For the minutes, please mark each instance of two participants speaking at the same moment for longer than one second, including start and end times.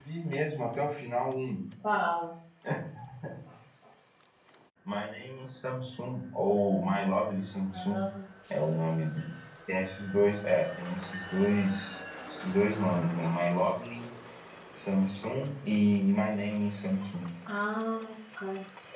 none

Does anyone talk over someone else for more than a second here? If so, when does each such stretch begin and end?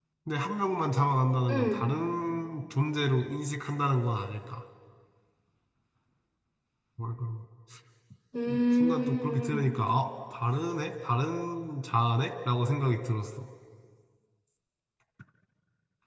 8.5-9.7

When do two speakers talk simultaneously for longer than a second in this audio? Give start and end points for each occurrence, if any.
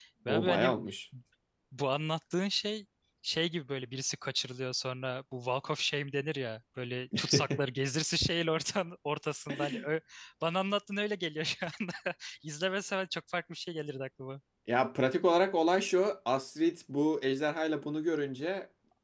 none

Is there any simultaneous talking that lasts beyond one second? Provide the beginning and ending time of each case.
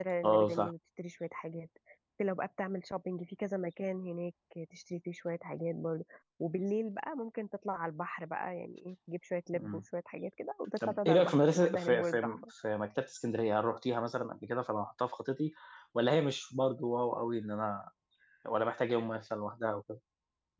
10.9-12.2

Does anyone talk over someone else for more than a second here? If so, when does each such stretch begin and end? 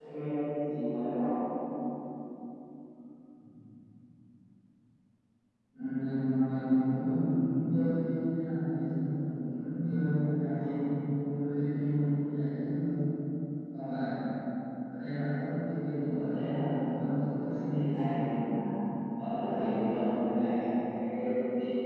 15.9-18.1

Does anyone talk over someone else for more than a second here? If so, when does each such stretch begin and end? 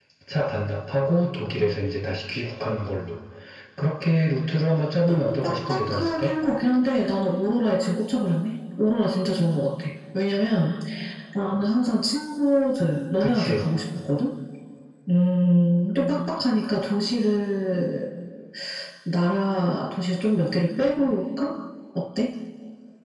5.1-6.3

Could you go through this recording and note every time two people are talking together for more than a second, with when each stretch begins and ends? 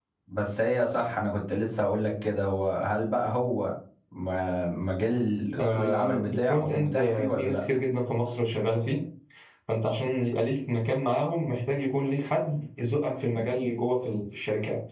5.6-7.6

